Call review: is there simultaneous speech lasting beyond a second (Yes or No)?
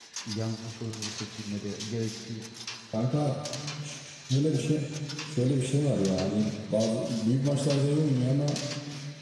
No